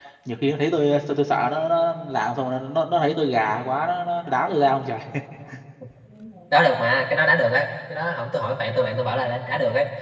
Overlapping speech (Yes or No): No